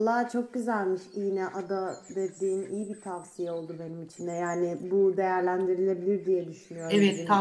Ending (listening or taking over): taking over